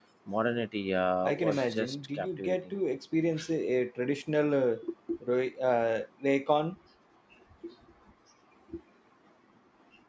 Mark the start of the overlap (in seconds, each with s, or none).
1.2 s